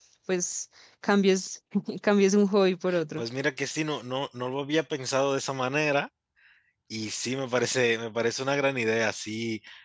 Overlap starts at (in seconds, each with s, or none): none